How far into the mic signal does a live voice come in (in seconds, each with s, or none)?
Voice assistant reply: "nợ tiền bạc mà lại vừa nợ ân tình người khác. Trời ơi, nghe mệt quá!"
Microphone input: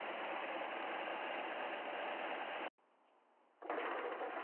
none